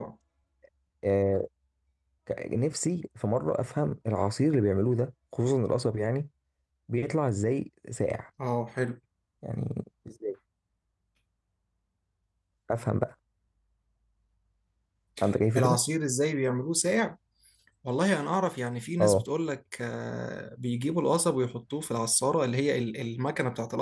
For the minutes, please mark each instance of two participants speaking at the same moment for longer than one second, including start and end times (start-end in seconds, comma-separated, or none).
none